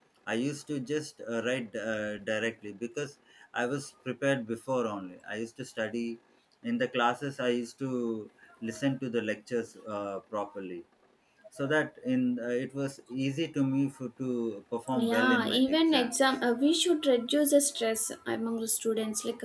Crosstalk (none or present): present